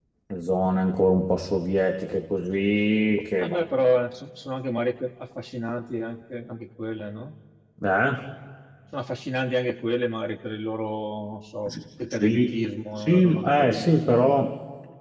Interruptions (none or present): present